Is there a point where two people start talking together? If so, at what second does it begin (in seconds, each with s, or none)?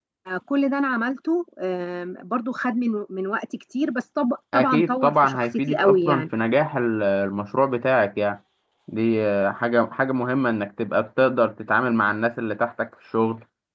4.5 s